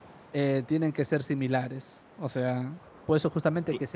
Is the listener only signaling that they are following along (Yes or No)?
Yes